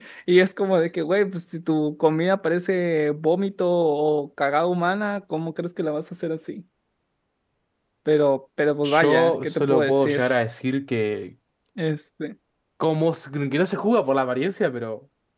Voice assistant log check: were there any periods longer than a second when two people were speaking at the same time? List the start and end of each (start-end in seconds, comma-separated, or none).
8.8-10.2